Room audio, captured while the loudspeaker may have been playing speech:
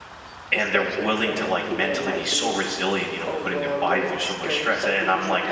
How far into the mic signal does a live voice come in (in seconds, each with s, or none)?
0.5 s